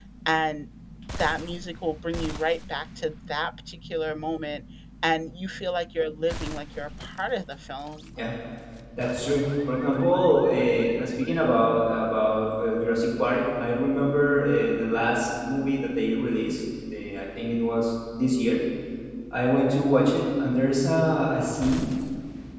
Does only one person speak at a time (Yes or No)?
Yes